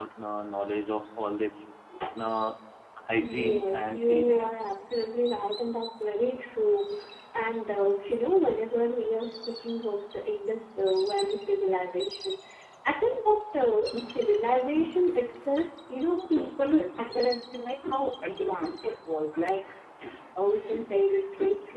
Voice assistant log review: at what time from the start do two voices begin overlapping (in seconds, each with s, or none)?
3.2 s